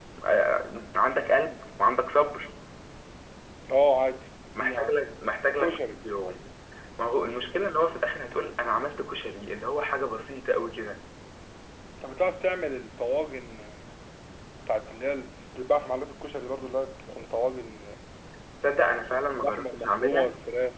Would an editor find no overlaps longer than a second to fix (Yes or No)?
No